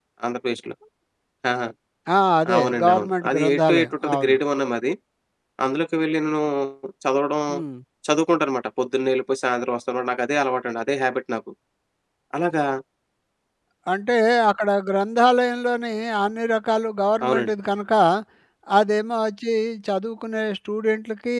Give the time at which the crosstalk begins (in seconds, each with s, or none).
2.6 s